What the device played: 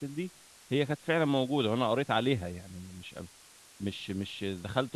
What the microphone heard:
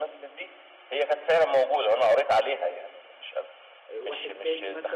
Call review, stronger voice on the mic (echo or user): echo